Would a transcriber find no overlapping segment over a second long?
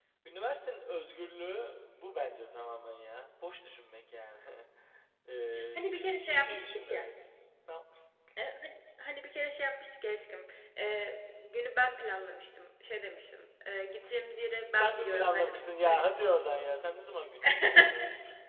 No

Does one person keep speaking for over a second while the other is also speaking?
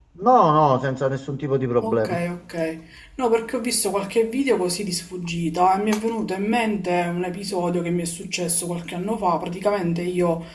No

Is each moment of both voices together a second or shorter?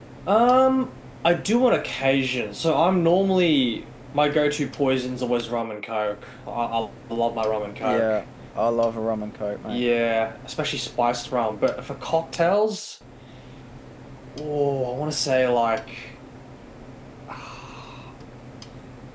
Yes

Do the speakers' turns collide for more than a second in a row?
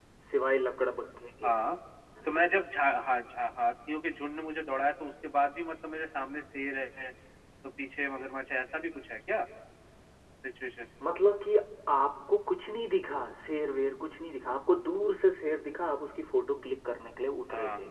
No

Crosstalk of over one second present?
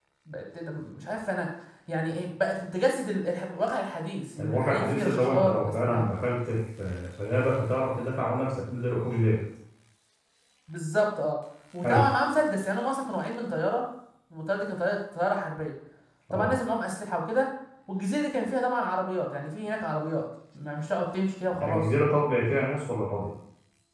Yes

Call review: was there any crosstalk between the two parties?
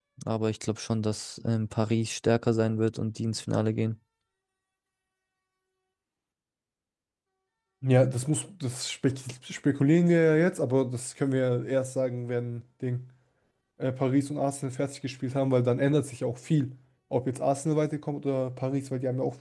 No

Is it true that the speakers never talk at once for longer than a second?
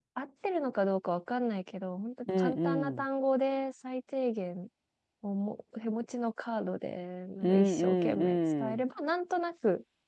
No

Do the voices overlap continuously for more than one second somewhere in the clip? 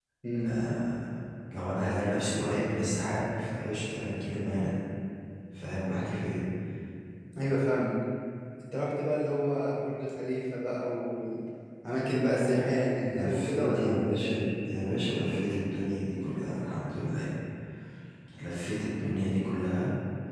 Yes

